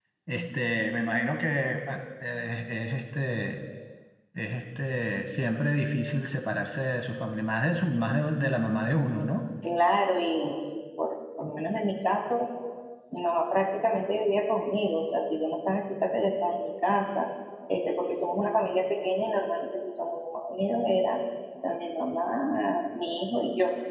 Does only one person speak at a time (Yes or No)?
Yes